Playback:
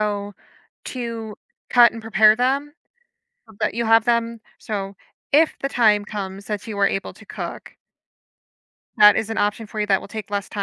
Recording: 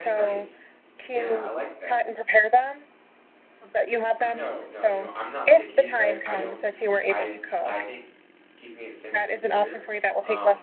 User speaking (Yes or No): Yes